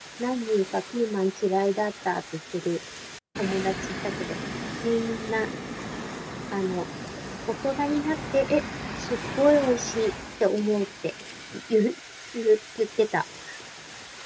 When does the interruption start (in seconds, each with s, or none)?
none